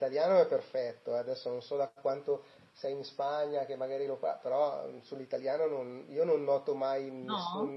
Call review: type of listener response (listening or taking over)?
listening